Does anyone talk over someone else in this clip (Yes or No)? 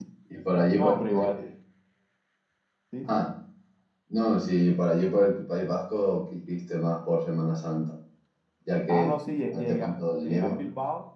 Yes